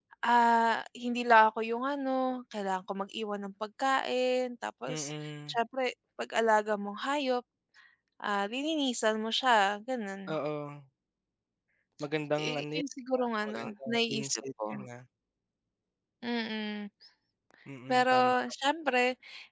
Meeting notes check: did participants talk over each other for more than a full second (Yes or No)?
Yes